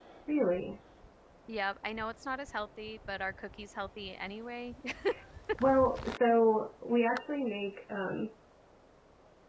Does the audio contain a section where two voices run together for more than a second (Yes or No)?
No